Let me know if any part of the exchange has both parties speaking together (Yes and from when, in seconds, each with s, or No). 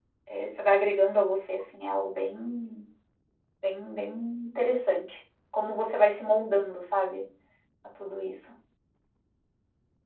No